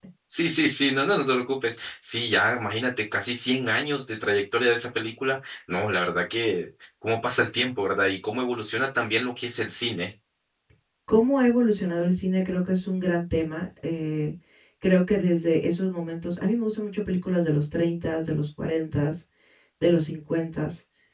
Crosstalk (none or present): none